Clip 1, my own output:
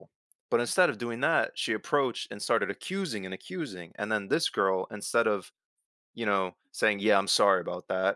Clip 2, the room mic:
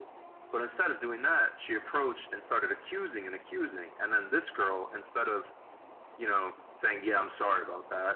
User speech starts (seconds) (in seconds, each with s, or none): none